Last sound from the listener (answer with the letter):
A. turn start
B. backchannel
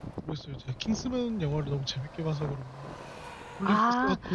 A